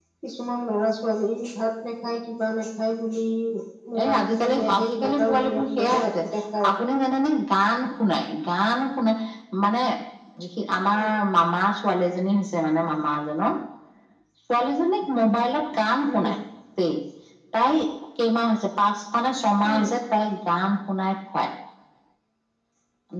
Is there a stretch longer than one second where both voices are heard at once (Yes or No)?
Yes